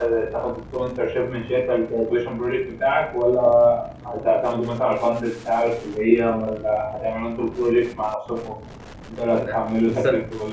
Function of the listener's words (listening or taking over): listening